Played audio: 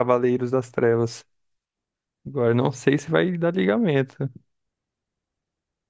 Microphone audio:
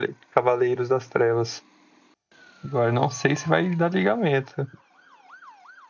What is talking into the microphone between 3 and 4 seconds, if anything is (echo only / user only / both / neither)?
echo only